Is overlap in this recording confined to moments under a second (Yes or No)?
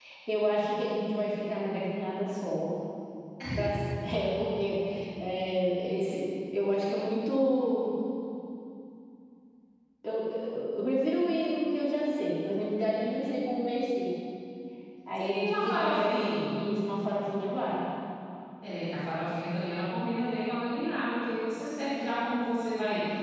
No